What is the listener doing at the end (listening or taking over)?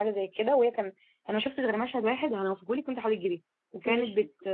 listening